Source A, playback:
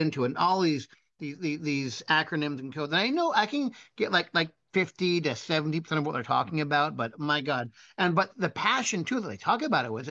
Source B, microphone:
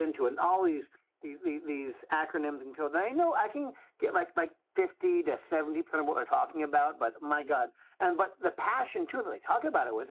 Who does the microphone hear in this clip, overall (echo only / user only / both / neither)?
echo only